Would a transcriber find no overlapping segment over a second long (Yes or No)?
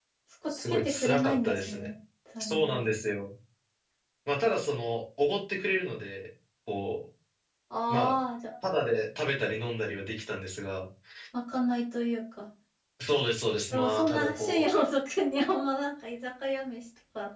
No